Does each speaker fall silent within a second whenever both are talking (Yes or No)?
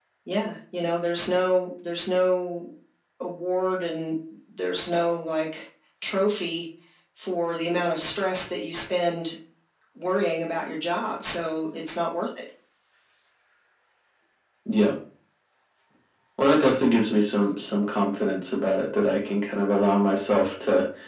Yes